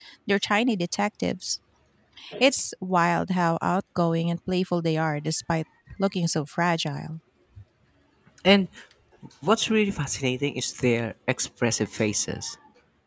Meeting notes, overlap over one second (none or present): none